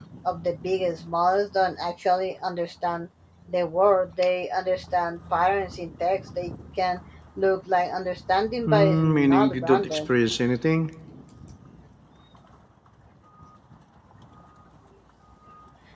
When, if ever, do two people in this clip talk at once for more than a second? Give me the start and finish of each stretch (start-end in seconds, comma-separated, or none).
8.7-10.0